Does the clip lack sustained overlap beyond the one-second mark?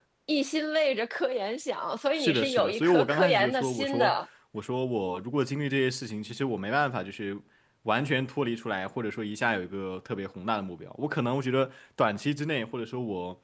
No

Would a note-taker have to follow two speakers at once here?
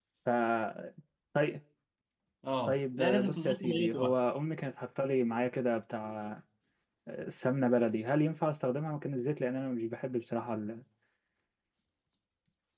Yes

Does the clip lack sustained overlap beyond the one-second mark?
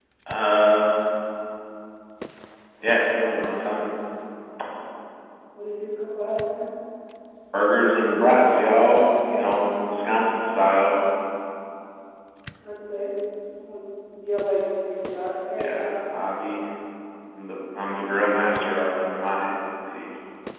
No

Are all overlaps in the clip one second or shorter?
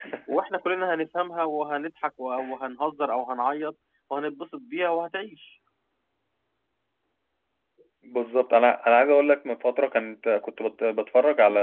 Yes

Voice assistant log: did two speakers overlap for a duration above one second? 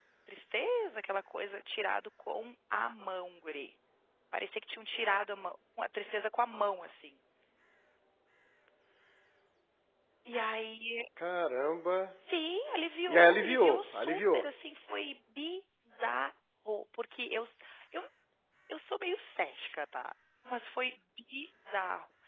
Yes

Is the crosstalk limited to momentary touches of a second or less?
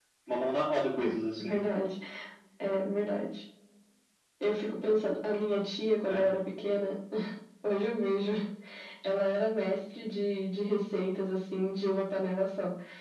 Yes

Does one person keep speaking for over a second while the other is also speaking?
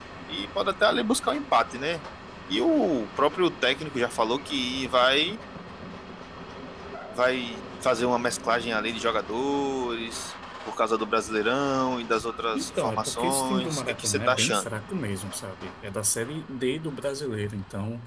Yes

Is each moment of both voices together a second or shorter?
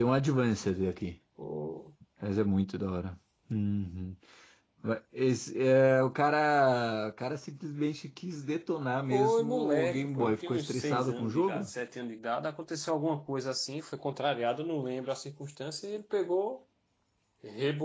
No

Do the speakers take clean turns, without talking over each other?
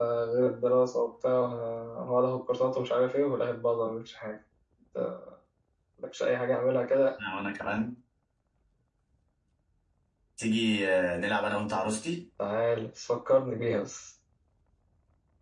Yes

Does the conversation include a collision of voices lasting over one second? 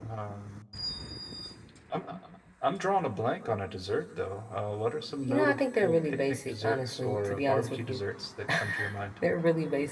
Yes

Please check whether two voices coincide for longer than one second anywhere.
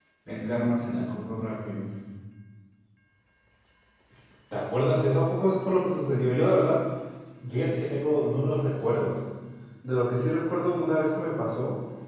No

